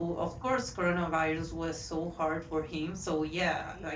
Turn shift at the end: No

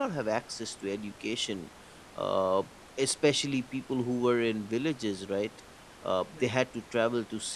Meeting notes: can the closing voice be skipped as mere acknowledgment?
Yes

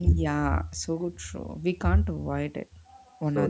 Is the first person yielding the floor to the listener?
Yes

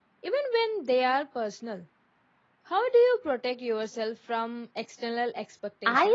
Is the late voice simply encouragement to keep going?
No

